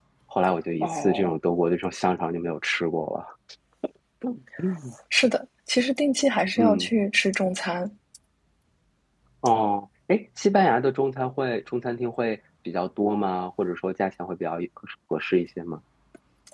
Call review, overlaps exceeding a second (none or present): none